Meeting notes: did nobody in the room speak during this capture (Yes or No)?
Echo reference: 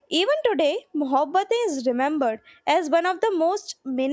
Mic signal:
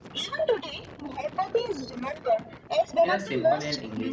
No